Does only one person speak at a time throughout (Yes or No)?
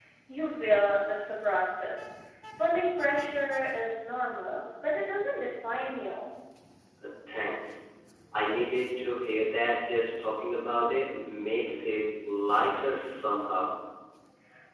Yes